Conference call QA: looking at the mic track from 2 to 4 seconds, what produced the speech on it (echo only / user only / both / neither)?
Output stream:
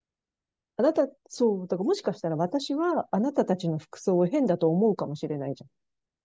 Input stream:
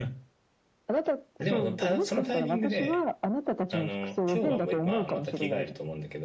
both